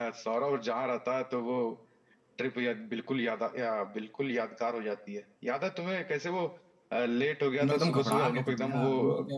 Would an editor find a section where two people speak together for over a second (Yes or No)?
Yes